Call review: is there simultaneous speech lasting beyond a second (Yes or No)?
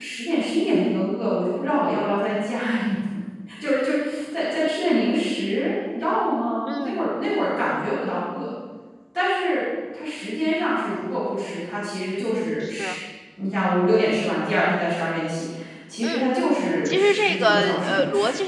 Yes